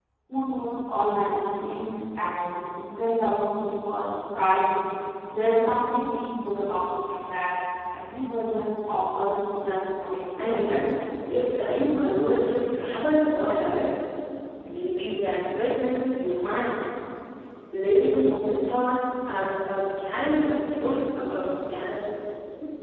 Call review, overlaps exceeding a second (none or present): none